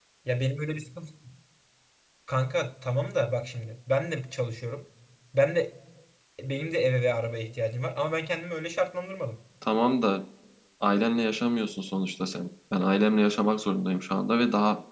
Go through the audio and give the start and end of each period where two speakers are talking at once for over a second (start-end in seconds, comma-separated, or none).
none